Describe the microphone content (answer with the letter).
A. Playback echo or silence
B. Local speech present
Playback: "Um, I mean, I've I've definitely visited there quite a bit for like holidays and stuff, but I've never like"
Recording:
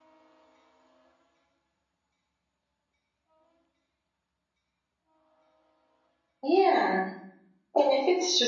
B